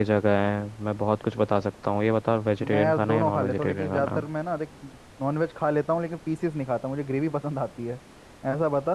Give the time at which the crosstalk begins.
2.6 s

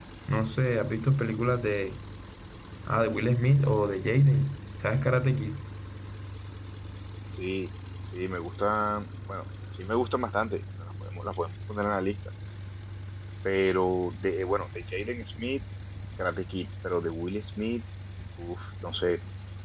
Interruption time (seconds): none

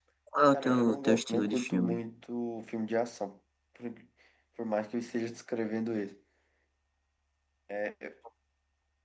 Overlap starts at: 0.5 s

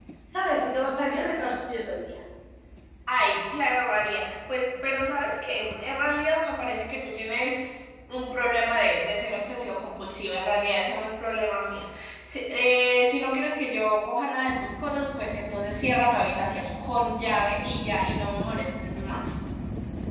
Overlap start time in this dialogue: none

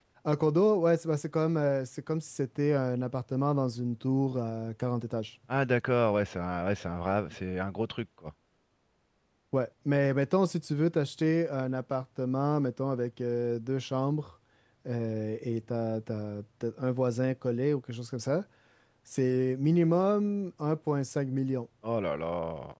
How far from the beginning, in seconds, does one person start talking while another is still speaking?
none

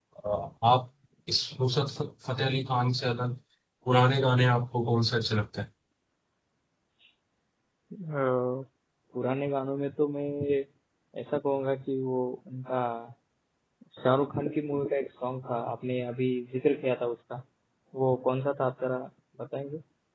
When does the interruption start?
none

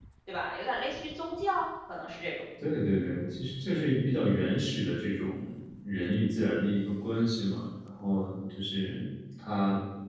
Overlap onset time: none

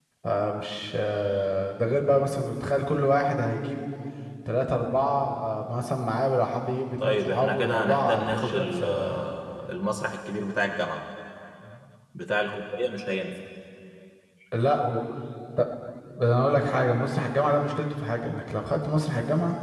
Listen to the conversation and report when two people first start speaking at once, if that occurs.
7.0 s

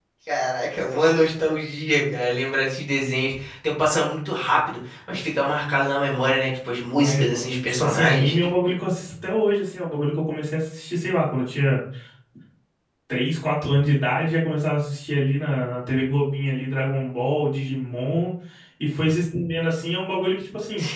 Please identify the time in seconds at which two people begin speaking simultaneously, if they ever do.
6.8 s

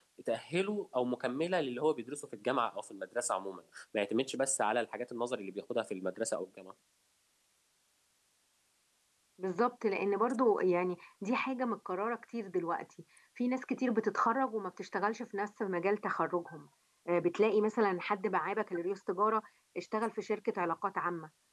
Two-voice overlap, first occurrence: none

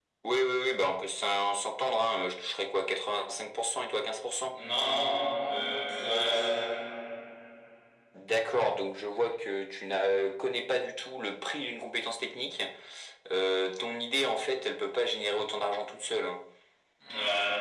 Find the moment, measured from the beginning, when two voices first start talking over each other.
none

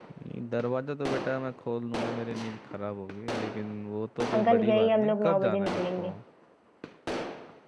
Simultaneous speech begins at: 4.3 s

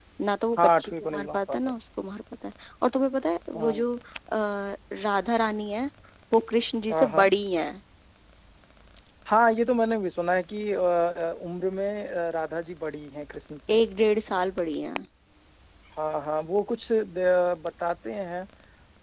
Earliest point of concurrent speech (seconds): 0.6 s

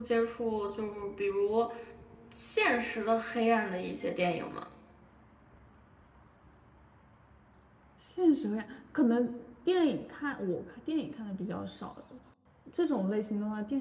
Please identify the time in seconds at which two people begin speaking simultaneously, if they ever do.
none

